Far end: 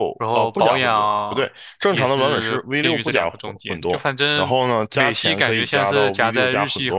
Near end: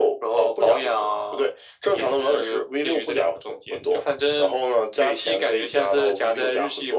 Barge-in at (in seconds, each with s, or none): none